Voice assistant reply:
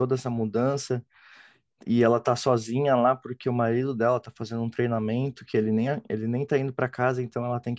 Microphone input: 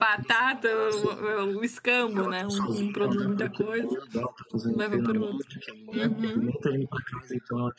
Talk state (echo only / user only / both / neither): both